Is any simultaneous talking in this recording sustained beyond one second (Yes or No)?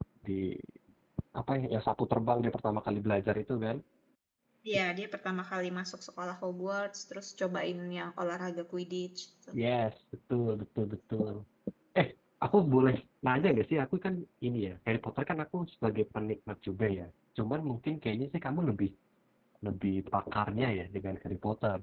No